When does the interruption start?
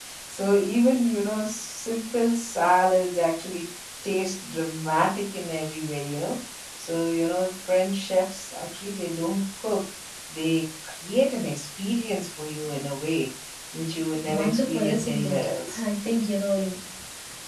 14.3 s

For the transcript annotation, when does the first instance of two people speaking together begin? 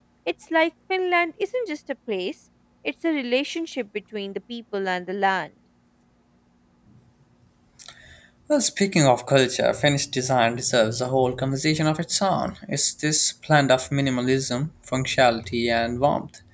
none

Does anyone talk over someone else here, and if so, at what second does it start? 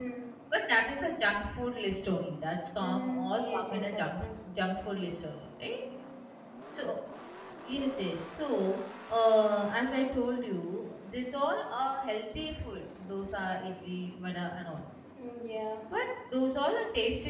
2.8 s

